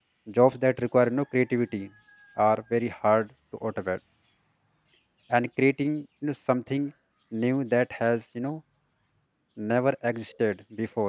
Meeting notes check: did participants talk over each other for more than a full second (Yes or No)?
No